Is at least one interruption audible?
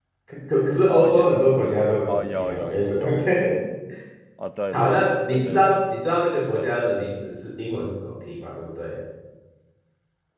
Yes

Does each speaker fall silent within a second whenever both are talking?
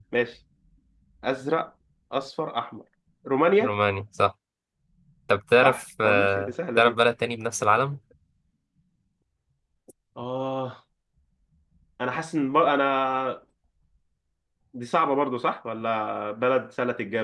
No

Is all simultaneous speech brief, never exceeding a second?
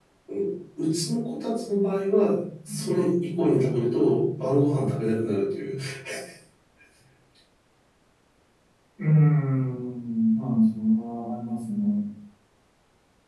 Yes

